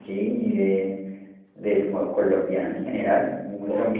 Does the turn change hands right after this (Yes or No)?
Yes